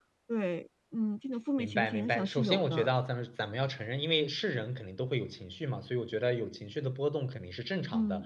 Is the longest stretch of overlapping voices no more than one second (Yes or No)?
No